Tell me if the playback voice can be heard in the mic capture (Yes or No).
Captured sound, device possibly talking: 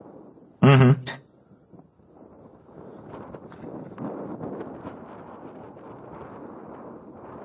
No